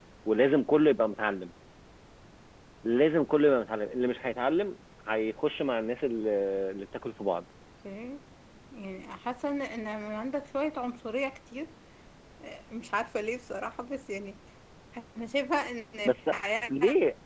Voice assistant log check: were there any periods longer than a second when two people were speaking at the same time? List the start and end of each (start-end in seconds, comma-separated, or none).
none